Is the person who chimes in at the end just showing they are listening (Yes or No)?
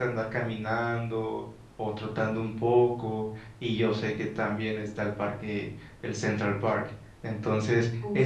Yes